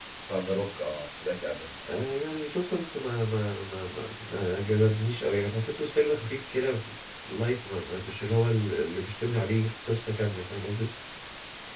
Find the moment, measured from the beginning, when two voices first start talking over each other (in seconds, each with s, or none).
none